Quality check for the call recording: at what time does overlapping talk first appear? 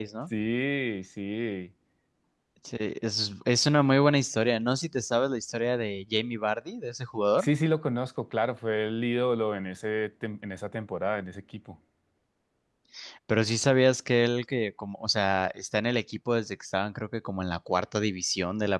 none

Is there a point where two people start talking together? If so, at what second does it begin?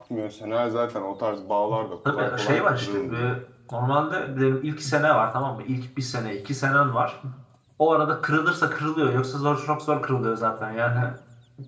2 s

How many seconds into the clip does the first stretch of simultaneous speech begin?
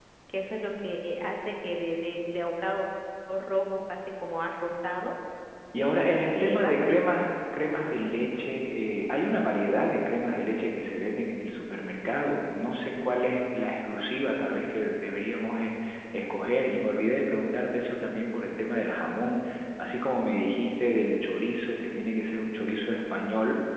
6 s

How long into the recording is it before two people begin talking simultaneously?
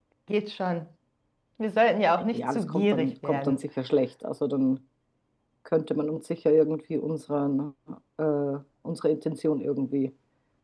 2 s

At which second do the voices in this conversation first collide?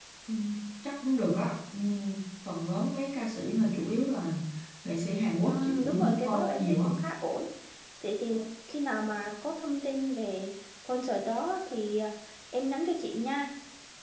5 s

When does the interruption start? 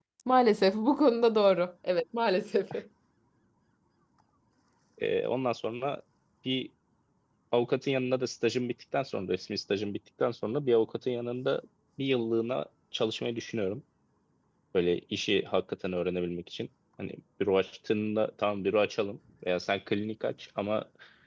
none

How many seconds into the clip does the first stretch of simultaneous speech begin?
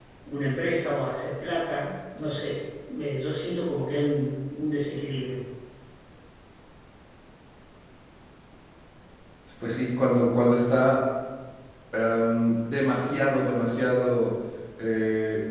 none

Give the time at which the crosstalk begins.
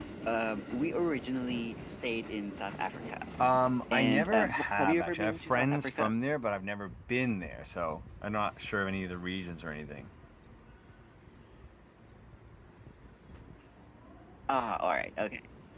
4 s

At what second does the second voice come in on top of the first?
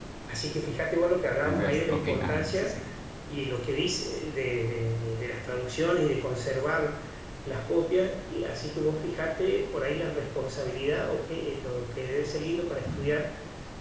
1 s

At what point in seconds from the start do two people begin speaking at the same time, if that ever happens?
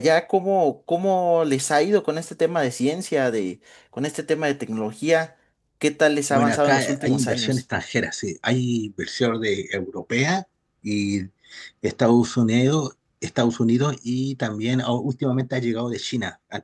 6 s

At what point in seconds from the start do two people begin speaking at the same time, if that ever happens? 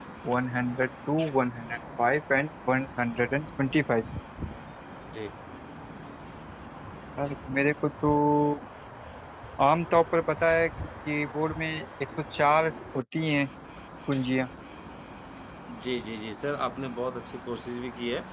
none

